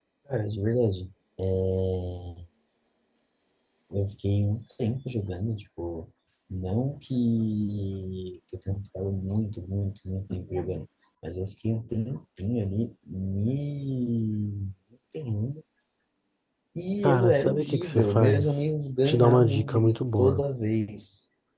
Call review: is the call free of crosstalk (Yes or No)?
No